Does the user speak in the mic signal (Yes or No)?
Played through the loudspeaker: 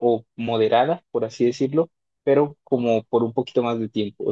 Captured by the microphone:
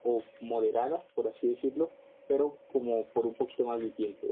No